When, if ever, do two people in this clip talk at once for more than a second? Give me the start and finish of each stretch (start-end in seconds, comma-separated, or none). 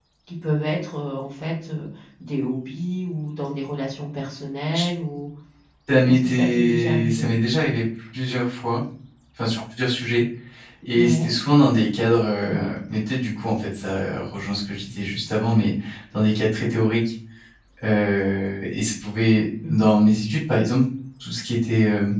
6.0-7.3